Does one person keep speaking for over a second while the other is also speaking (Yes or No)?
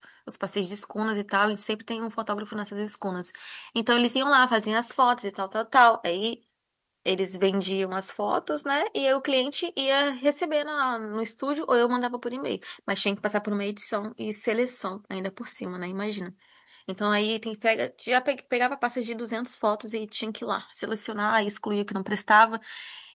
No